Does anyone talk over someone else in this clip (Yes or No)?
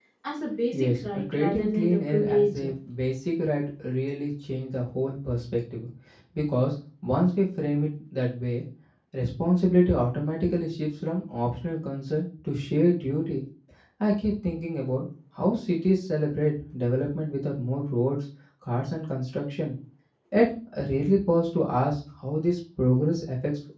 Yes